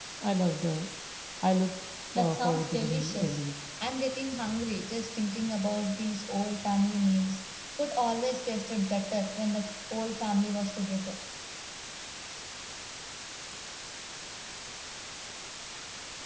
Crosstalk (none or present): present